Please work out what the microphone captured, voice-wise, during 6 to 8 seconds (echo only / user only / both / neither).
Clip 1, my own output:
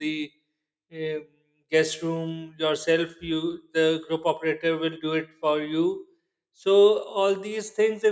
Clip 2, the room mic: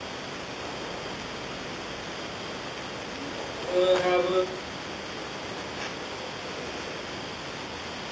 neither